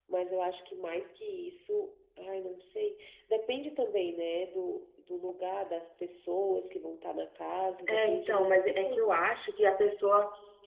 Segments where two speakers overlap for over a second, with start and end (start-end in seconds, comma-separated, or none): 7.9-9.1